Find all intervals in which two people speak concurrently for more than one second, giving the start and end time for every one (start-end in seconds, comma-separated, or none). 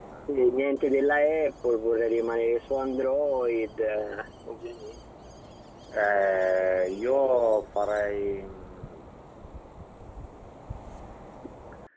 none